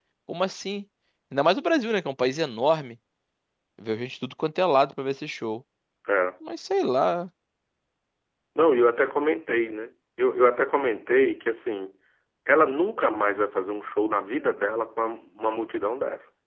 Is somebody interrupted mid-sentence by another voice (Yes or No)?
No